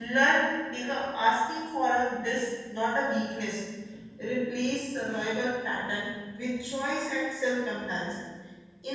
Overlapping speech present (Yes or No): No